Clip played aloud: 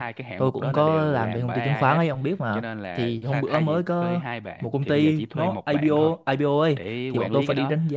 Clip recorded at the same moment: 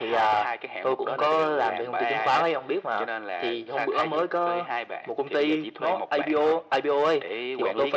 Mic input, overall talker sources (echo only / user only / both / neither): echo only